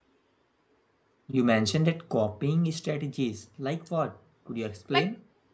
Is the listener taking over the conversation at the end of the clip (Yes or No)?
Yes